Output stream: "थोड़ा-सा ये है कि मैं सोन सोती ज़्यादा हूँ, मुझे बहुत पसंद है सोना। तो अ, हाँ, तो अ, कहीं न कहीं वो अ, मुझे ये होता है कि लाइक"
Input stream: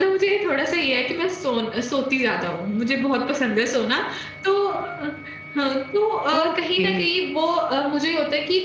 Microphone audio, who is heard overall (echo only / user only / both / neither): both